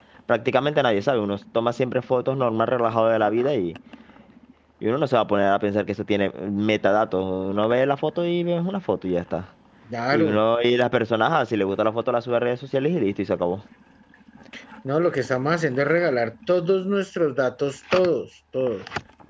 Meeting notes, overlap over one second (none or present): none